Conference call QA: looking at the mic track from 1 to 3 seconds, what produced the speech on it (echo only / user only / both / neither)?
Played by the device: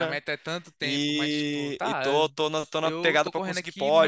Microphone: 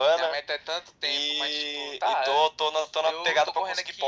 echo only